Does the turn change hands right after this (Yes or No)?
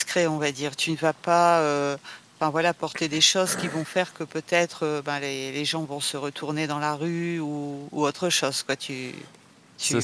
No